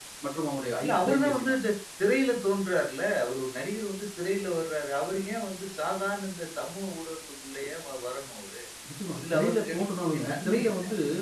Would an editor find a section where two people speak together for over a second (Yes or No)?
Yes